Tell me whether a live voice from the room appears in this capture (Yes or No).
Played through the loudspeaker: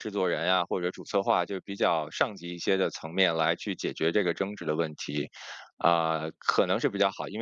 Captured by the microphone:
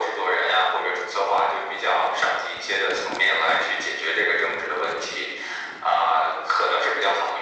No